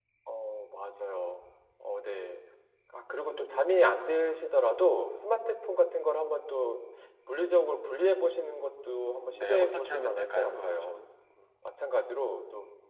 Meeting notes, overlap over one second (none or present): present